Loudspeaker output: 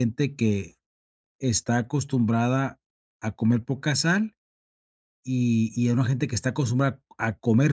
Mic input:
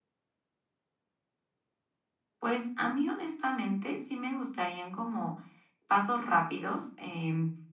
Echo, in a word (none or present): none